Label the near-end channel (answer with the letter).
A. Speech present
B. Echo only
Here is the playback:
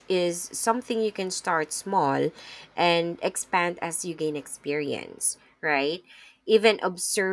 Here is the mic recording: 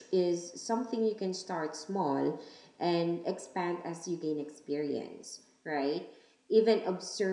B